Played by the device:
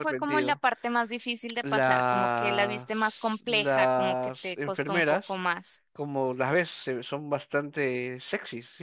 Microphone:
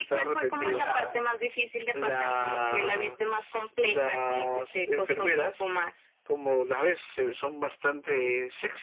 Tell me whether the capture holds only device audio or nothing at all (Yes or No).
No